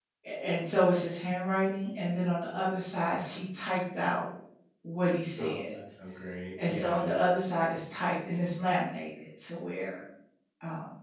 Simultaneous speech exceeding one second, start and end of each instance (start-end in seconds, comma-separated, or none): none